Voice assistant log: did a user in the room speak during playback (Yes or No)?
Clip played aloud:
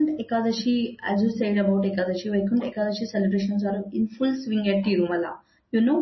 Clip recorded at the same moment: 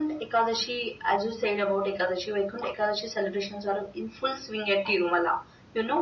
No